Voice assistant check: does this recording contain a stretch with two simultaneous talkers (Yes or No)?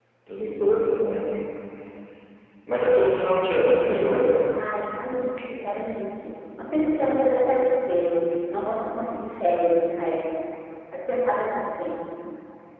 No